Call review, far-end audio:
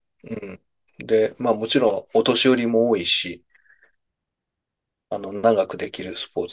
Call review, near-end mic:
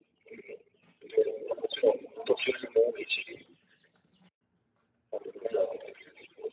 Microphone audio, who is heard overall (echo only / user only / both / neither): echo only